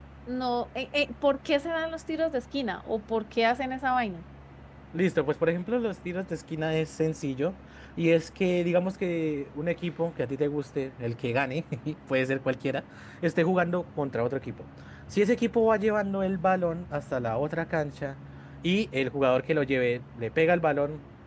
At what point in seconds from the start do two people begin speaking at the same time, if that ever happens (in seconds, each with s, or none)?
none